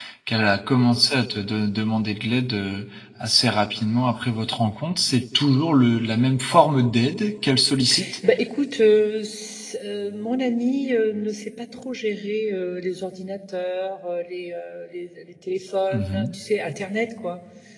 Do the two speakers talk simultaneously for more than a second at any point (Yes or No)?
No